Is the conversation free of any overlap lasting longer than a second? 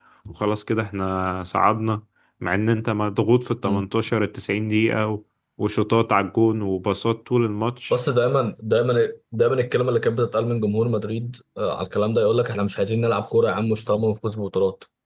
Yes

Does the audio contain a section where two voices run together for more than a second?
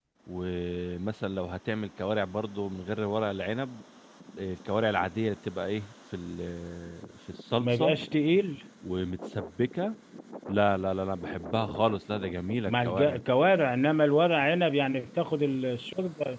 No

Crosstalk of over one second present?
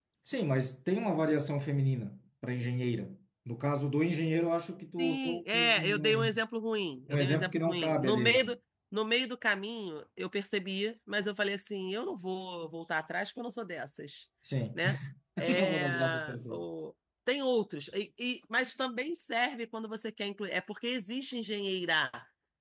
Yes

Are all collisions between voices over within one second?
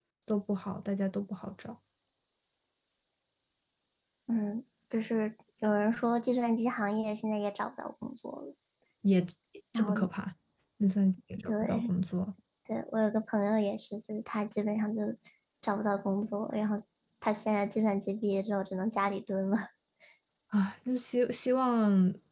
Yes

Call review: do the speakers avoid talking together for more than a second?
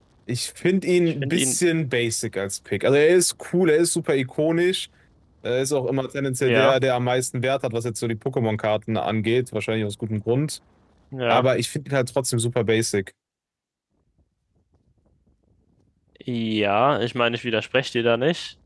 Yes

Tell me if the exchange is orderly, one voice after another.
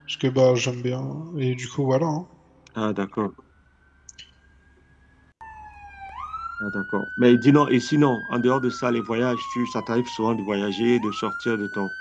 Yes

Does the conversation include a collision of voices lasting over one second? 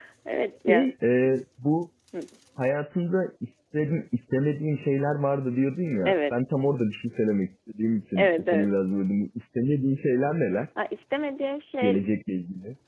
No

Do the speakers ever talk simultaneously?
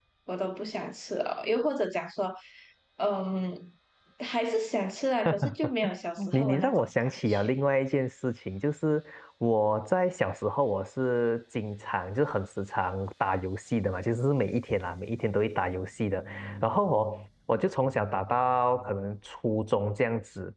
Yes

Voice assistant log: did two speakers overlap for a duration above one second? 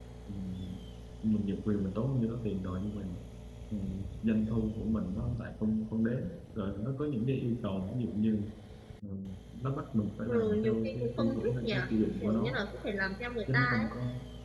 Yes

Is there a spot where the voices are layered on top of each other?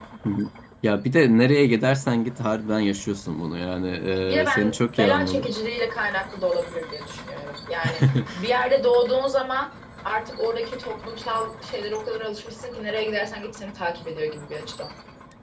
Yes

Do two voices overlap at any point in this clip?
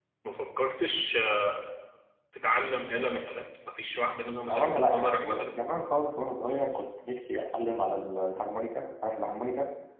Yes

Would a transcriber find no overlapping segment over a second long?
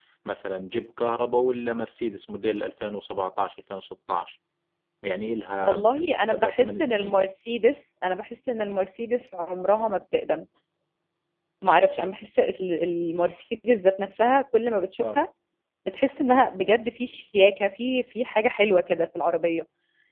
No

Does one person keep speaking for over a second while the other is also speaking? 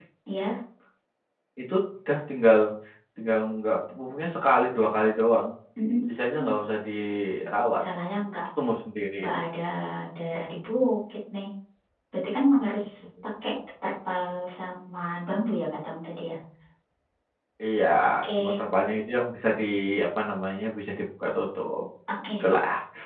No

